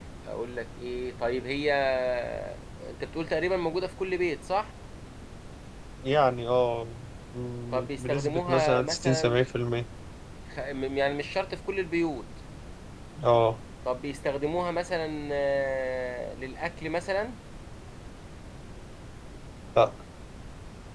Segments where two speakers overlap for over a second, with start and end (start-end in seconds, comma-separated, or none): 7.7-9.4